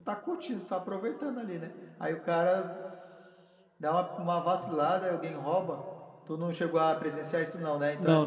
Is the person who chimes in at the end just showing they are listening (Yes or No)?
No